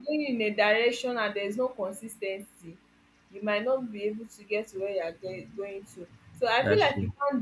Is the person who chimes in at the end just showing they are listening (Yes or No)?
Yes